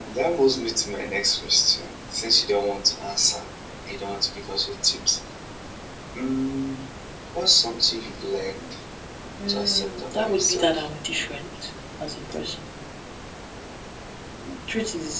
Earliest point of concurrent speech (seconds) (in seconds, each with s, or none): 9.5 s